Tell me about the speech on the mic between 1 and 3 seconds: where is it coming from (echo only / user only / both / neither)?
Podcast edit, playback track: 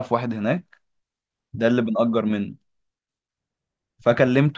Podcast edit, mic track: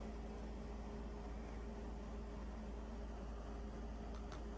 neither